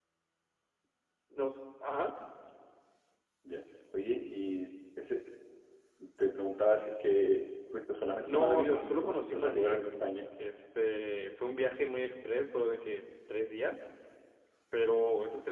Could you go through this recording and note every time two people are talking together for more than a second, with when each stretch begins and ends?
8.2-9.8

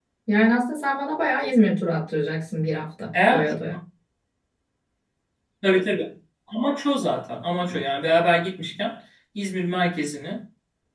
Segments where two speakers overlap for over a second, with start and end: none

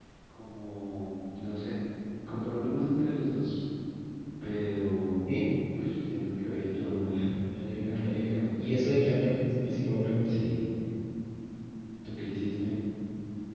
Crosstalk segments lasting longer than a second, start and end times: 7.8-9.2

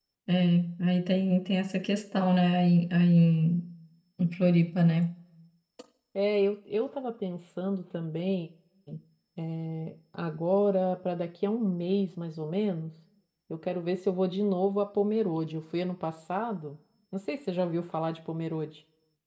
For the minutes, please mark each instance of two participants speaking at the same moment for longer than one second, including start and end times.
none

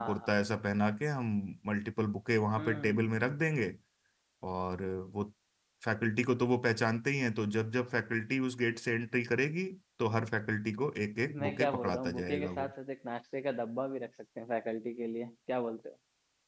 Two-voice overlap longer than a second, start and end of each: 11.4-12.7

